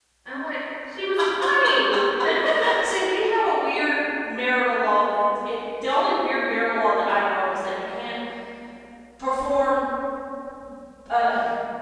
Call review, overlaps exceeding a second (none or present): none